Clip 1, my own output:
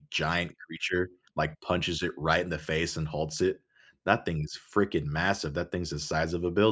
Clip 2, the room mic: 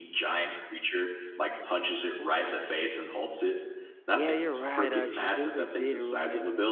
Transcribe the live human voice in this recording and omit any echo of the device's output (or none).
Yeah, you're right, actually Disney did ruin it.